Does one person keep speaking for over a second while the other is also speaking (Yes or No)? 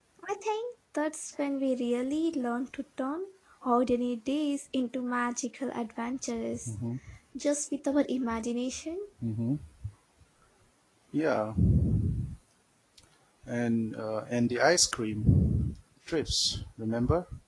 No